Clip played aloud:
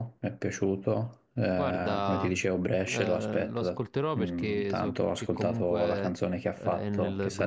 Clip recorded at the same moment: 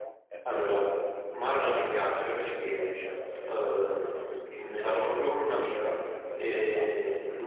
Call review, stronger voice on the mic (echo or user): user